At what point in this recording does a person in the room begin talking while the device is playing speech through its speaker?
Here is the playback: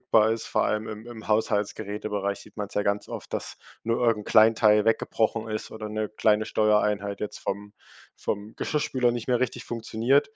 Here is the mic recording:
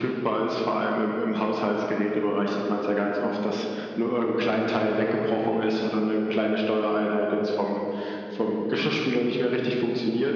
none

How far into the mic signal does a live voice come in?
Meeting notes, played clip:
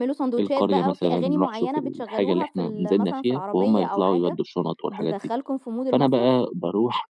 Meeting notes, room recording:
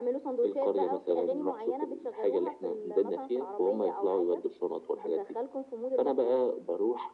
none

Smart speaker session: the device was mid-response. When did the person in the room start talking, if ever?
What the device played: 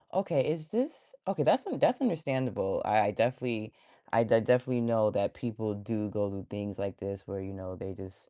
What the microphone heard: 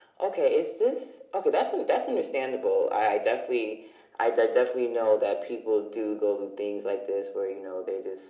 none

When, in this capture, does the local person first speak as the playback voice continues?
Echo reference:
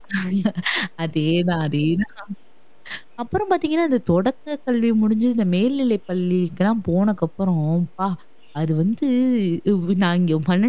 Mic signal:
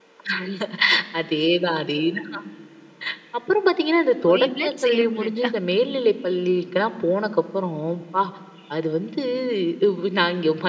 4.3 s

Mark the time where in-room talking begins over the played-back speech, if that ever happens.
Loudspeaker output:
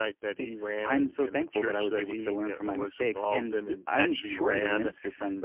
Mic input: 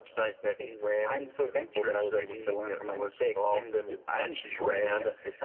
none

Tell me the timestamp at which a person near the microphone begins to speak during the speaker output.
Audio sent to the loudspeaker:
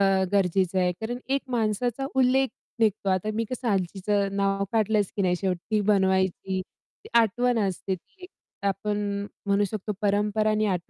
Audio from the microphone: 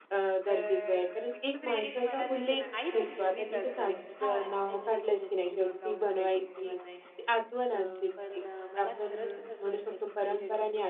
0.5 s

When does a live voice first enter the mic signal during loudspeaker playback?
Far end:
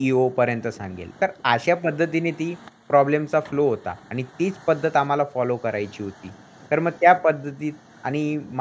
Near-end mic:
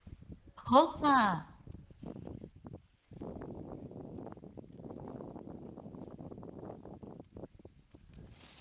0.6 s

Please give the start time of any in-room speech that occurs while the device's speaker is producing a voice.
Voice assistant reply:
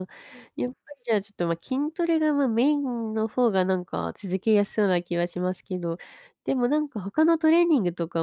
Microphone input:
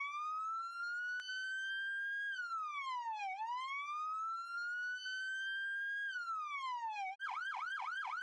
none

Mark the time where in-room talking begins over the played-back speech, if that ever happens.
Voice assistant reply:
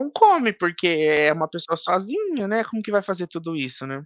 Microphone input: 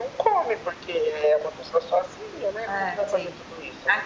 2.6 s

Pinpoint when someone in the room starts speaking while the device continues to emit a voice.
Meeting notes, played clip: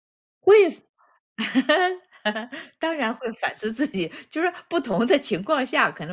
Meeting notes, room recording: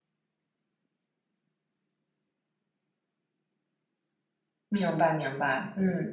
4.7 s

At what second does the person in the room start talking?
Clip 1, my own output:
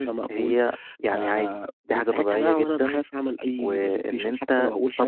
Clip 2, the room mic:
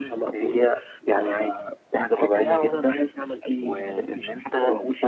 none

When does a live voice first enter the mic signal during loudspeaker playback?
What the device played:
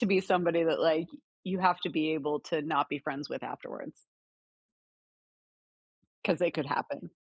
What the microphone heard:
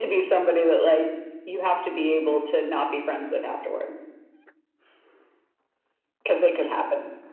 none

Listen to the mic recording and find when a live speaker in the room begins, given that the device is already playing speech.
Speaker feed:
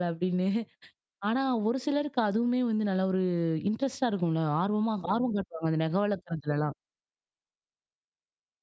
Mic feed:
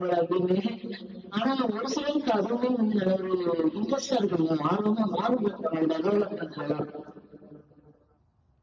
none

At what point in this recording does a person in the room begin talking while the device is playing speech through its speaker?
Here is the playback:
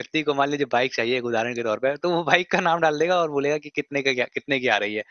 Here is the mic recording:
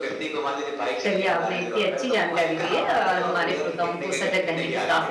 1.0 s

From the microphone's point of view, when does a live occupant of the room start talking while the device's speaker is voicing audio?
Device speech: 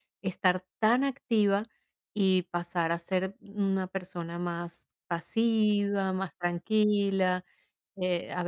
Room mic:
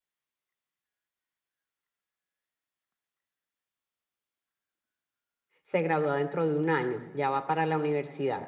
5.6 s

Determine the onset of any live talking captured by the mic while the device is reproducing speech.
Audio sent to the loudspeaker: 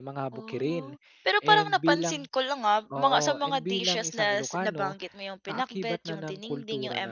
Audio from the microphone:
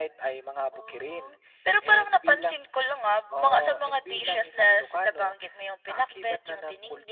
none

